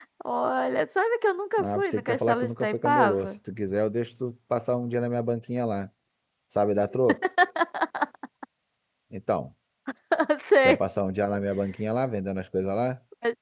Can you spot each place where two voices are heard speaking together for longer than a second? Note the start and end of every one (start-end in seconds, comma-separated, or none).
1.6-3.3